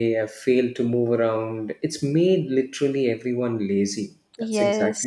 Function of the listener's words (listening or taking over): taking over